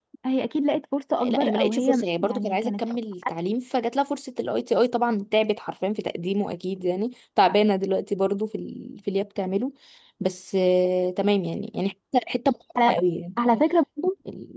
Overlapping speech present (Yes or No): Yes